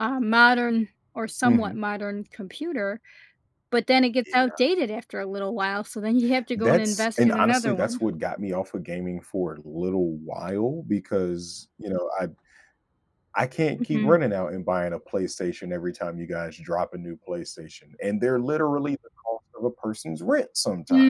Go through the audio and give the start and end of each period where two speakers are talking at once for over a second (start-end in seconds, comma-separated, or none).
6.5-8.0